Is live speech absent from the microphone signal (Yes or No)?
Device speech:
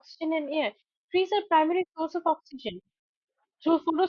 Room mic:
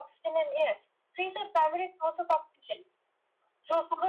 Yes